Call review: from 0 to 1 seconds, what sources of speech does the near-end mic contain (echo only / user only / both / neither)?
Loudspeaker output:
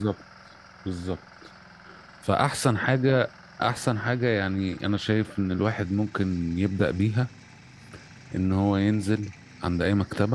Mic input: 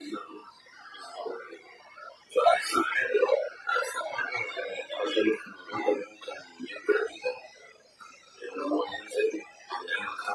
echo only